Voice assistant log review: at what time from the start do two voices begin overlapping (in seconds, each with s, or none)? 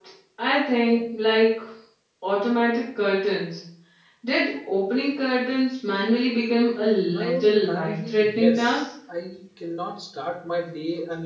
7.0 s